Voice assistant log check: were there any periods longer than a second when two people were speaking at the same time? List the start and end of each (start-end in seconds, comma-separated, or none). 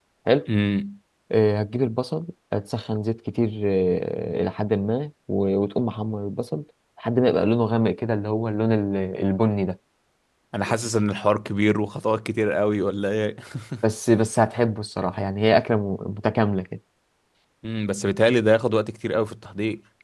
none